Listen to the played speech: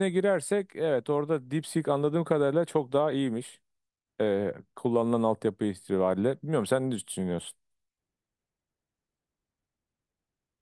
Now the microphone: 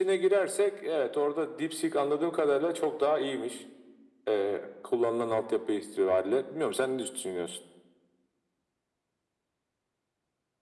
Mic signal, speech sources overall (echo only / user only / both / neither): echo only